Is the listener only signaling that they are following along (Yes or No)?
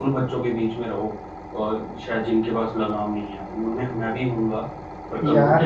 No